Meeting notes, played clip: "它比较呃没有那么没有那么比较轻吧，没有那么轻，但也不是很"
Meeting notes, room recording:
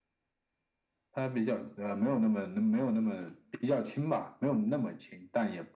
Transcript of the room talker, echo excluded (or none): none